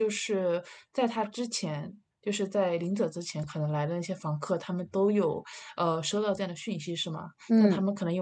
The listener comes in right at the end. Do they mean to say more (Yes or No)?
No